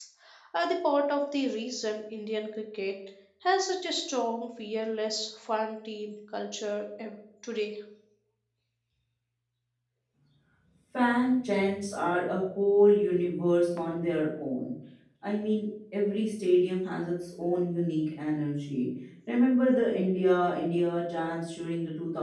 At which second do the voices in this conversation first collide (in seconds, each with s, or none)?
none